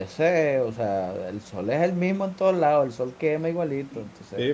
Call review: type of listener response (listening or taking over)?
taking over